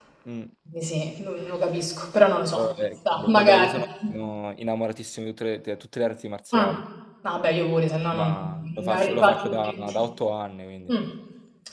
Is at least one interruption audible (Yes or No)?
Yes